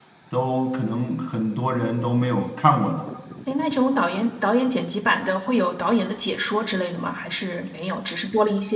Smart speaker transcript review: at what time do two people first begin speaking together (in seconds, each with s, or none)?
none